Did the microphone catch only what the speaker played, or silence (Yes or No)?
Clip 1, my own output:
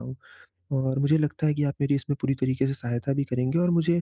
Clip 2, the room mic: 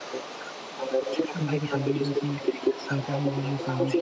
No